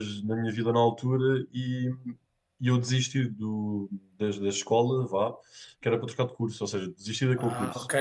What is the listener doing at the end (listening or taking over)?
taking over